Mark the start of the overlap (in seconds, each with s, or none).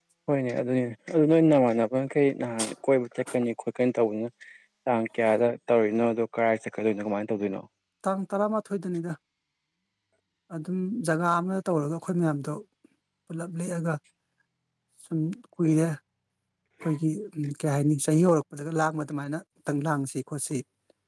none